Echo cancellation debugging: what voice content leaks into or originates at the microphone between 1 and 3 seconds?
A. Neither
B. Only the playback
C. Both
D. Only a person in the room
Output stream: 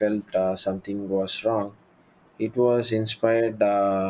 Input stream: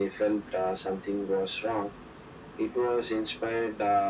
B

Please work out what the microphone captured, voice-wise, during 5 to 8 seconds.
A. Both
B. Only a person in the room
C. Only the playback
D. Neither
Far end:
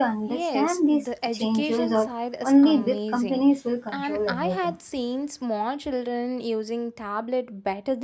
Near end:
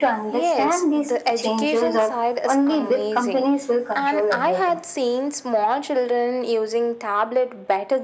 C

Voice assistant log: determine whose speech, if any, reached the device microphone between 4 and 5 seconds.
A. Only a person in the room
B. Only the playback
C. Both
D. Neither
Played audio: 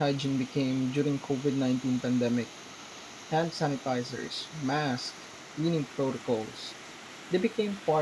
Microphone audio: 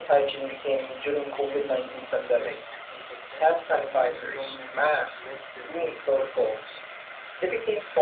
C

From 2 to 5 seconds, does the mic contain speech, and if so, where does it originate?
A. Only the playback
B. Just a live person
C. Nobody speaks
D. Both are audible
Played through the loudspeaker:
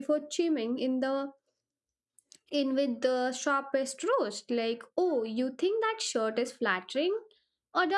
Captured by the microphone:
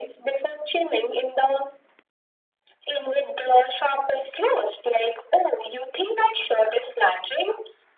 A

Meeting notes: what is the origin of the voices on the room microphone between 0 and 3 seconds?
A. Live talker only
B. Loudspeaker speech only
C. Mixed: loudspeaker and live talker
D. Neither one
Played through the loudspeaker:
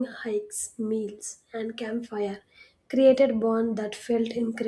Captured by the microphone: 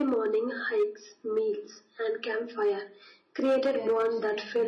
B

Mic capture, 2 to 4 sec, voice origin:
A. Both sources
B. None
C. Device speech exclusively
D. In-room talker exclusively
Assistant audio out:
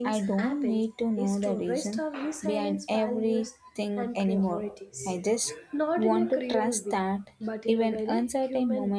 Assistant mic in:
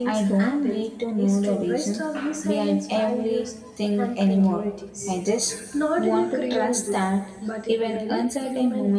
C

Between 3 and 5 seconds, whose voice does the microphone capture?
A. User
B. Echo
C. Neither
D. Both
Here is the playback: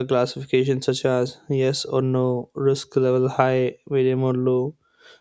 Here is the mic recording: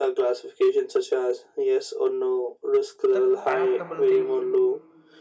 D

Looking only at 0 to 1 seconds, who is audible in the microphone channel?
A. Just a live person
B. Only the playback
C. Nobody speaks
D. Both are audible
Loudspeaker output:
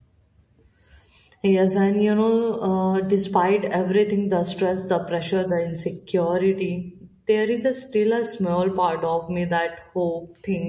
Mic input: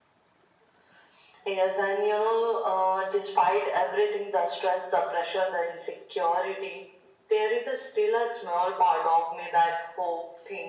C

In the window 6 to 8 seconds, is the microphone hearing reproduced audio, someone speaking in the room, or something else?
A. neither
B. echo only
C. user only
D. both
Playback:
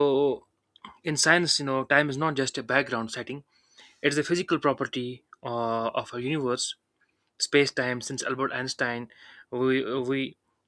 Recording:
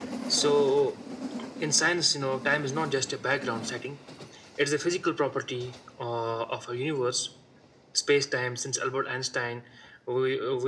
B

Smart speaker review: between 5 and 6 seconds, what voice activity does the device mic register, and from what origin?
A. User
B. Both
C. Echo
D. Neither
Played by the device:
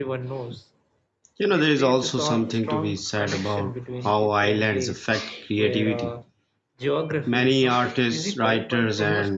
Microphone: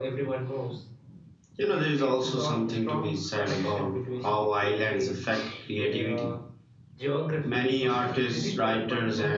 C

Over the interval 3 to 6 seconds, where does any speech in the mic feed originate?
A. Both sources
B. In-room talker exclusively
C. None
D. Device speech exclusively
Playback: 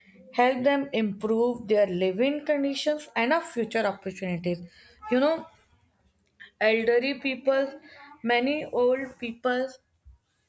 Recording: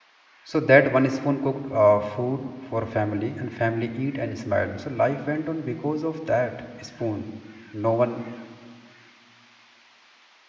B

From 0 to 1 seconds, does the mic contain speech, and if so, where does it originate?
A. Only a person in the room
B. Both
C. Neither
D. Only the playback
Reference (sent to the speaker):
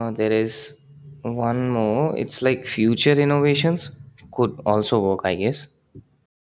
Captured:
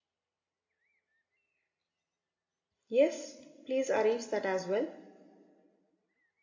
C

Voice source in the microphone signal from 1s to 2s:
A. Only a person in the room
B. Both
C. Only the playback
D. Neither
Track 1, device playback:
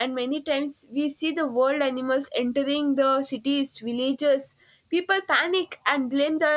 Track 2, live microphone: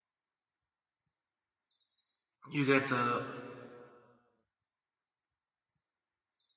D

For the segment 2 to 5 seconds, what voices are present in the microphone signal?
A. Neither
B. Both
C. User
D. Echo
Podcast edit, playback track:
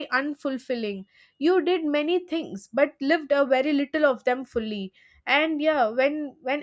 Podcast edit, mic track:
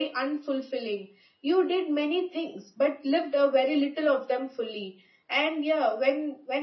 D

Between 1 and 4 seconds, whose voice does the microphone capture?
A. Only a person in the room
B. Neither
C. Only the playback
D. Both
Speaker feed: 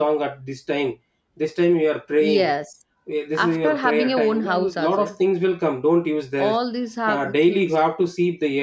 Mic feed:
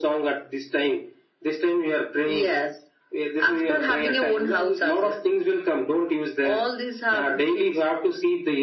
C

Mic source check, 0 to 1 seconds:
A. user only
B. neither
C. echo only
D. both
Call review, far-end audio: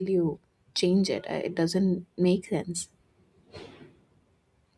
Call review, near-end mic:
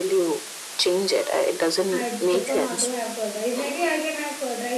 C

